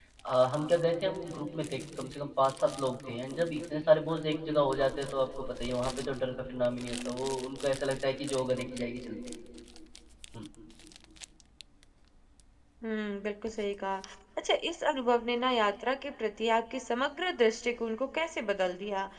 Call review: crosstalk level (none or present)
none